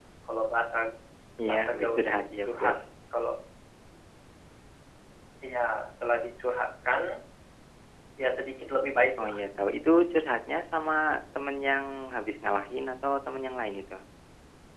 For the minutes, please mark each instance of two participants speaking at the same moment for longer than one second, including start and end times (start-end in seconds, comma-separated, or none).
1.5-2.7